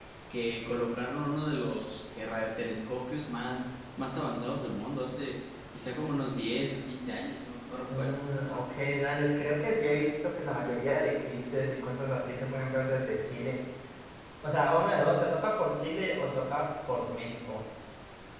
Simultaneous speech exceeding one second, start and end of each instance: none

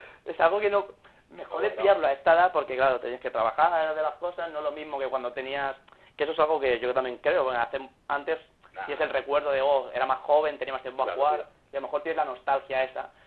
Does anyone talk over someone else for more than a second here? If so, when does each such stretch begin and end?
none

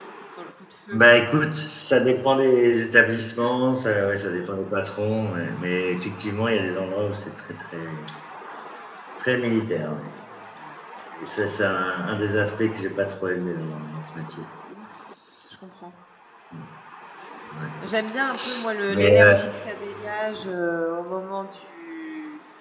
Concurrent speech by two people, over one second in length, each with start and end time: none

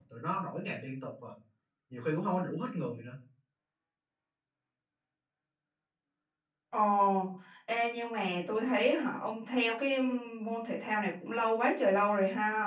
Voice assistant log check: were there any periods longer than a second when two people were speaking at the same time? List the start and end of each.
none

